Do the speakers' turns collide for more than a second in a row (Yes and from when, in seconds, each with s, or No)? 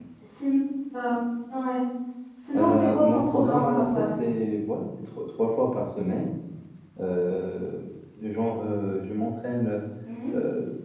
Yes, from 2.6 s